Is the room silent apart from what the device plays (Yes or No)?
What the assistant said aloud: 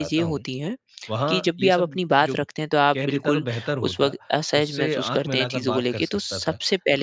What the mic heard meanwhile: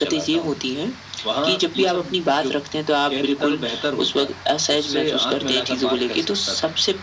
Yes